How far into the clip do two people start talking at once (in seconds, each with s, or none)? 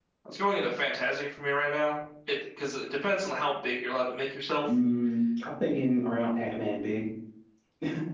none